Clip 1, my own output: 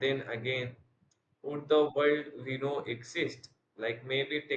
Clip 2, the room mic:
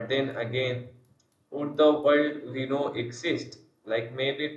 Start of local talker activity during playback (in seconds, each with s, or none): none